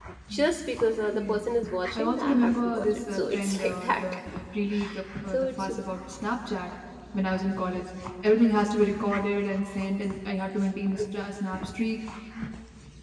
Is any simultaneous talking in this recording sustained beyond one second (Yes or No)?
Yes